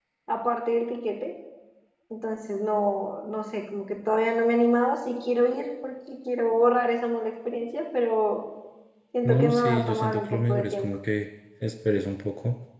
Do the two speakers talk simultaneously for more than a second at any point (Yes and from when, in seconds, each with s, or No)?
Yes, from 9.2 s